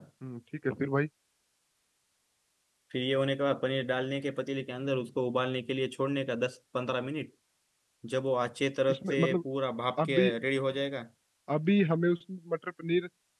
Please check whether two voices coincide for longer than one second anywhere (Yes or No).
No